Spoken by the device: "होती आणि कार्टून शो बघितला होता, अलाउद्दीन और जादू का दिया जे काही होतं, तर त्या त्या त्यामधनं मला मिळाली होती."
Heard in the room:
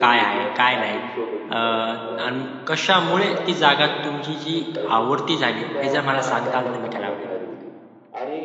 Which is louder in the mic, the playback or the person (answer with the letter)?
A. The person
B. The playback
A